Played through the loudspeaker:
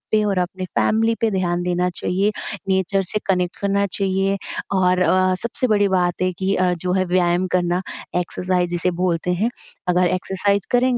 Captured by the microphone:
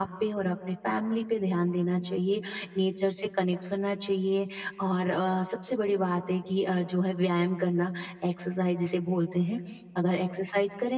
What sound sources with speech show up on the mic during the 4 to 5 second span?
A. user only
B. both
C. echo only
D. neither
C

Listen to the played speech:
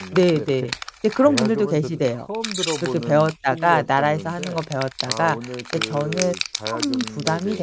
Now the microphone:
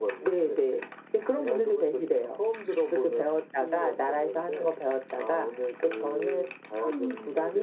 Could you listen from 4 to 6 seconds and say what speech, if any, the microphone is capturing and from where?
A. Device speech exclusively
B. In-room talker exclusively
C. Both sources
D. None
A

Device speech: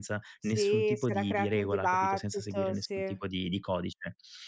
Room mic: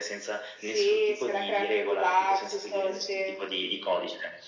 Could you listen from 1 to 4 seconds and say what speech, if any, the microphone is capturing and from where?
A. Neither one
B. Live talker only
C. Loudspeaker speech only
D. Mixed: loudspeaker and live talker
C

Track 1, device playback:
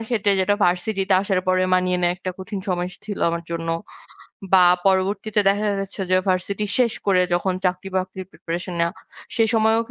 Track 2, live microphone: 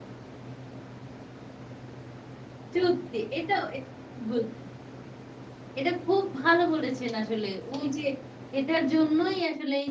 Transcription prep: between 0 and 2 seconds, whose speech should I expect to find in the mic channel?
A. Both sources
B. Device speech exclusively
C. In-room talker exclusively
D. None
D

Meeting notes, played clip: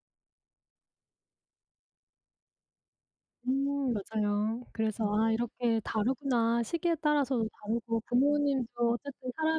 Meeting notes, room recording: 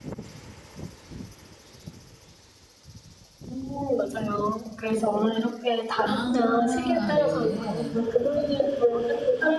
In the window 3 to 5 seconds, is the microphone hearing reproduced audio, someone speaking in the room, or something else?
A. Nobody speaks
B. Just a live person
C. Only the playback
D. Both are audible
C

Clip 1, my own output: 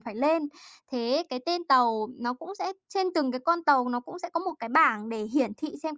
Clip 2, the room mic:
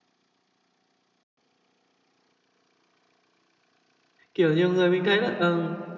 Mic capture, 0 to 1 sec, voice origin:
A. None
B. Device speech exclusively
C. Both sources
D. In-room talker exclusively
A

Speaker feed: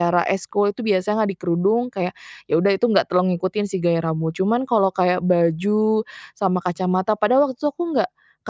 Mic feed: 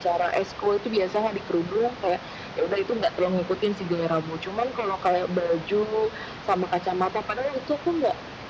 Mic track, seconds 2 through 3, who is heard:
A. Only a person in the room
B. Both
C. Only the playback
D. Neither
C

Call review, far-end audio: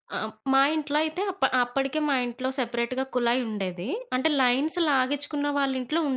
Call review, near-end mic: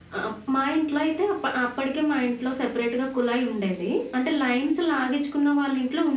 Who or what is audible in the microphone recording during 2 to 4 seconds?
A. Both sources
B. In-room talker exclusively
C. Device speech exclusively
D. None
C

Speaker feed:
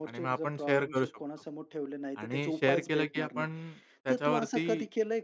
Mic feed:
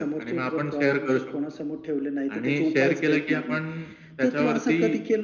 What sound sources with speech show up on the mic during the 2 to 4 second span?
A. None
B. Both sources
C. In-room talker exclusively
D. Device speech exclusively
D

